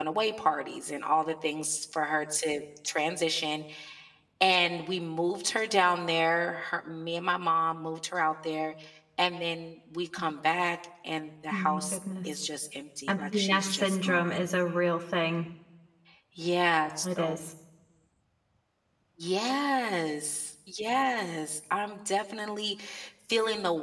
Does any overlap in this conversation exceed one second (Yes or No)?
Yes